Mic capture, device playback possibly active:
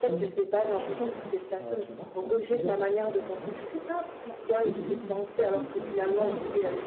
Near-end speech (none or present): present